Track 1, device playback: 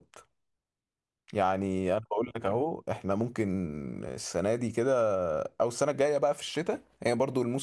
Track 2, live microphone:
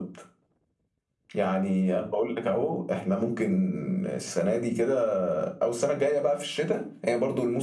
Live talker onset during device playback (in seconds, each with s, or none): none